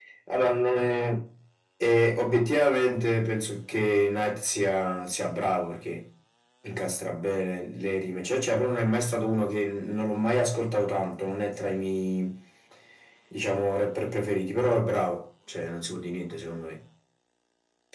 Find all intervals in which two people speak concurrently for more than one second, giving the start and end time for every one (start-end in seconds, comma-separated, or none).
none